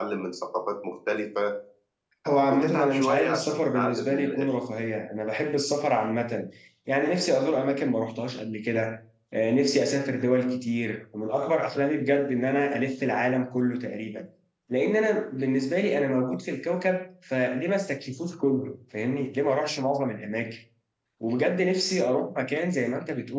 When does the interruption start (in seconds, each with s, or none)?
2.5 s